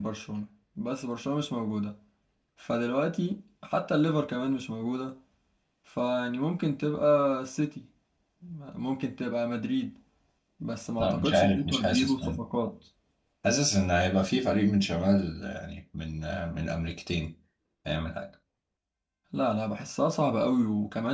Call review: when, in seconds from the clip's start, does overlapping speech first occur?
11.0 s

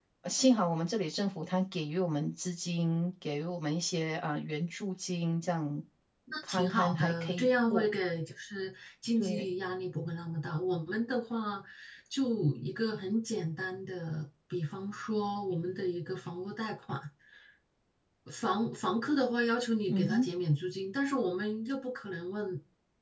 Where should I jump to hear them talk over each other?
6.5 s

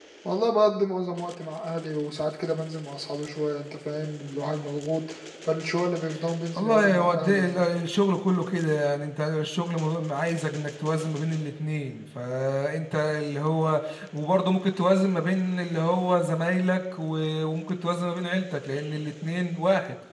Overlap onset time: 6.6 s

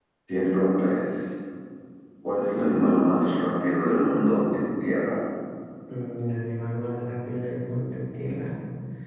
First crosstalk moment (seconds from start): none

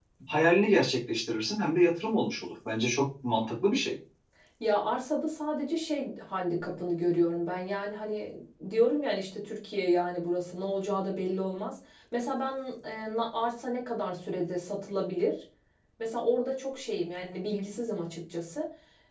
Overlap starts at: none

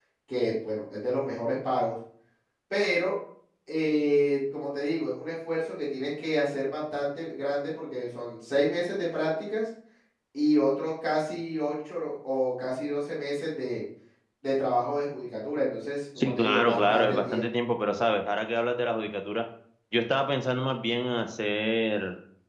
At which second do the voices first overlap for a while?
16.2 s

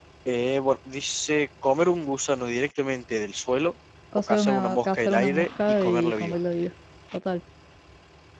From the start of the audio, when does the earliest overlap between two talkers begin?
4.3 s

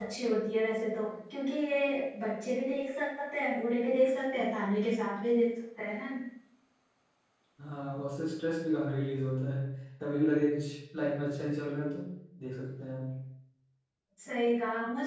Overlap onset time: none

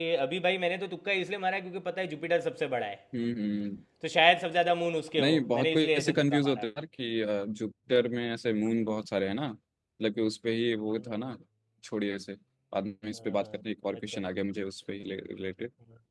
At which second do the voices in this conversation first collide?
5.2 s

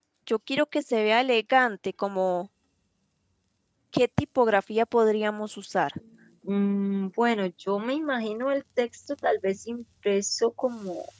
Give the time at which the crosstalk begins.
none

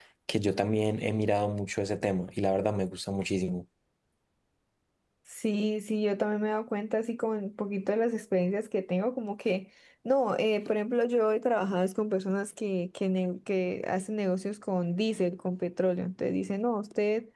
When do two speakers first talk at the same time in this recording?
none

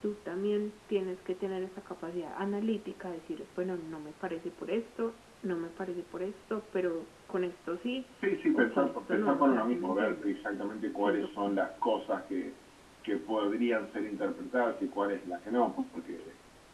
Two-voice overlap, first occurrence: 8.5 s

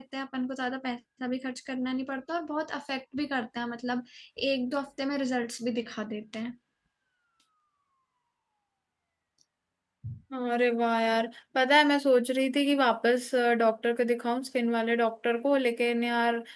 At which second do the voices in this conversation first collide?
none

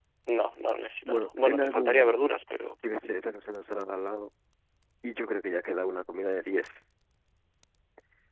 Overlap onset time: 1.0 s

